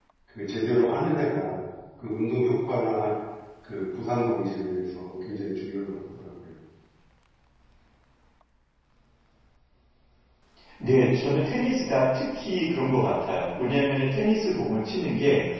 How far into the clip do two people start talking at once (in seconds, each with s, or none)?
none